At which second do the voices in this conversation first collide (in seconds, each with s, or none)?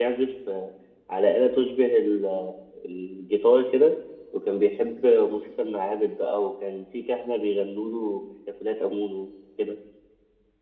none